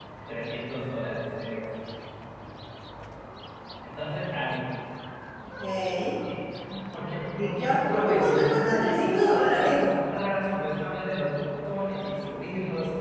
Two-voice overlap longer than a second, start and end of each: 7.4-9.9

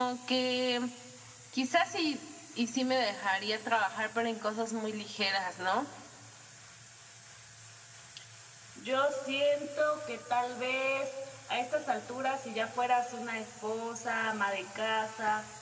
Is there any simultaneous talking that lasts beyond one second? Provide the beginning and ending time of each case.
none

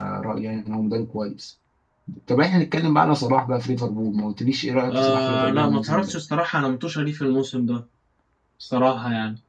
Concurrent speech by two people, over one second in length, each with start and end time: 4.9-6.1

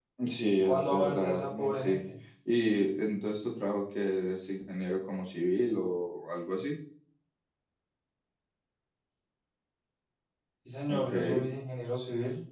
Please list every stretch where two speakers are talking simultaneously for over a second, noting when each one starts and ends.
0.6-2.0

